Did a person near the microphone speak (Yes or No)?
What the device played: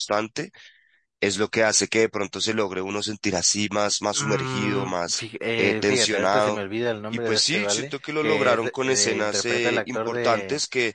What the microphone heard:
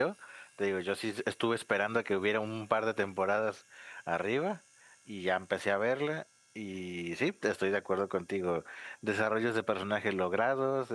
Yes